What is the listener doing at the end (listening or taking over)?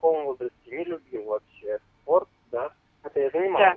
listening